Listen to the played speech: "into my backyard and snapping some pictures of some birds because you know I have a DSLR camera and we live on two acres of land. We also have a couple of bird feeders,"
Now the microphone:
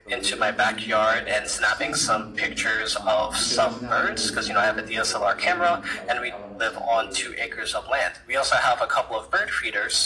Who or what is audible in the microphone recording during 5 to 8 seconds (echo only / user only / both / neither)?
both